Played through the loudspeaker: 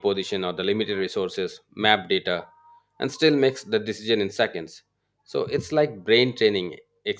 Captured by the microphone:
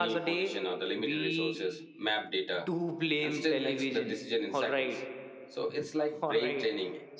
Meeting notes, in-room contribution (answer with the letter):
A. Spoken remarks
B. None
A